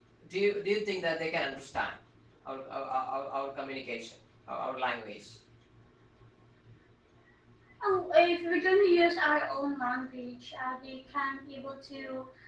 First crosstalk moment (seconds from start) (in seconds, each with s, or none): none